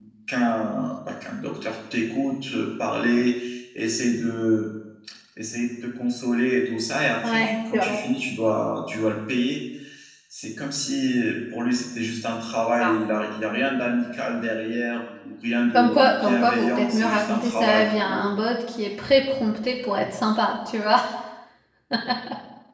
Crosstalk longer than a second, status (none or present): present